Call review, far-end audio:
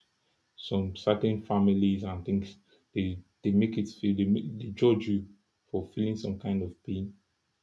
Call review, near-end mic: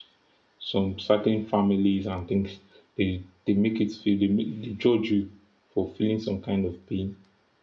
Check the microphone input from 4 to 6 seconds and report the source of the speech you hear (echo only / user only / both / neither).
echo only